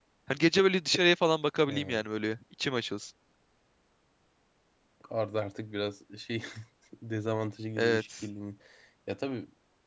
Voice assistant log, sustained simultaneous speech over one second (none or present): none